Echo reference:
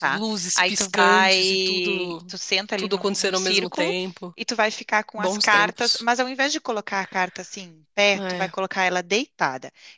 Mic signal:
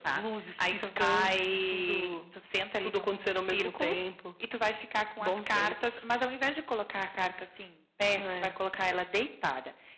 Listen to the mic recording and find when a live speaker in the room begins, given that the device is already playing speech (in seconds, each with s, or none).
none